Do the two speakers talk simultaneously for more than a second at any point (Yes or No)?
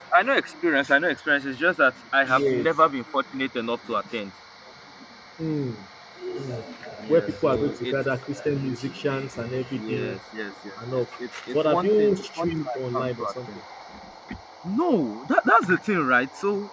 Yes